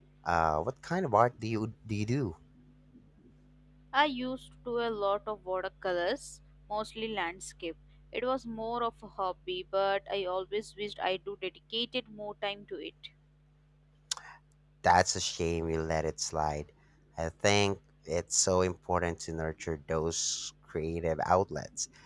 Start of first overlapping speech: none

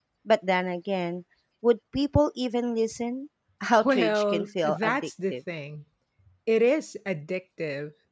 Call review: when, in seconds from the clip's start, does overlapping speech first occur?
3.8 s

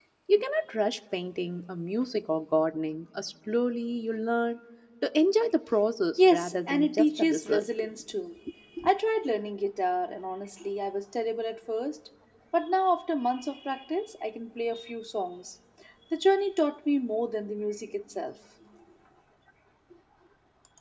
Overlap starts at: 6.2 s

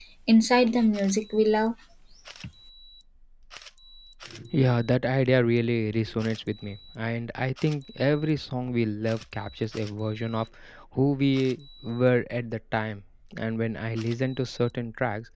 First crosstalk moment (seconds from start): none

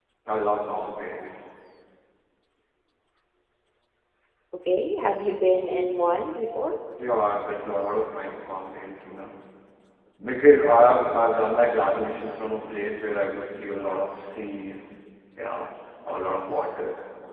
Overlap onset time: none

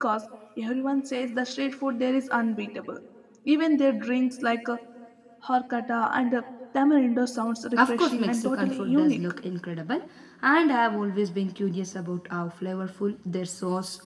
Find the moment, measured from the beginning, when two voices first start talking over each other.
7.8 s

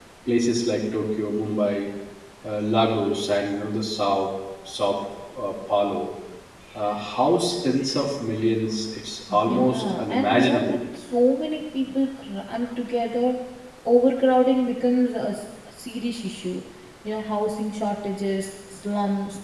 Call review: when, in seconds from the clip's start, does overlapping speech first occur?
9.3 s

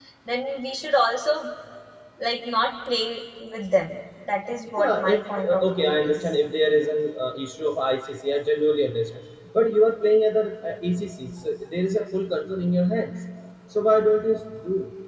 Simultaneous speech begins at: 4.8 s

